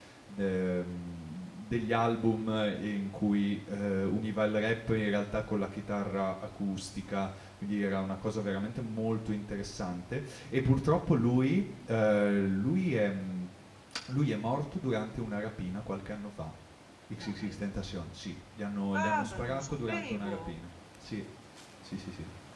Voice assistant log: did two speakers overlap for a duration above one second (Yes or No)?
Yes